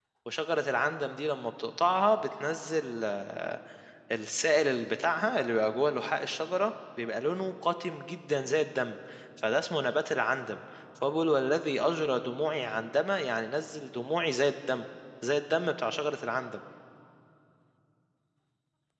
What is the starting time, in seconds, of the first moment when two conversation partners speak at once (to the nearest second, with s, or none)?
none